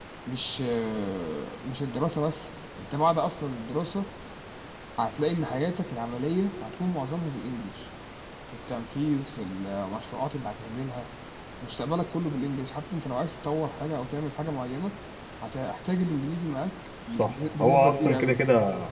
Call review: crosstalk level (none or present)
present